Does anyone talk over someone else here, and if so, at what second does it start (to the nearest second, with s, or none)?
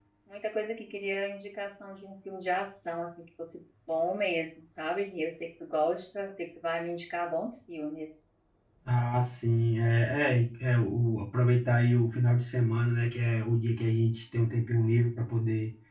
none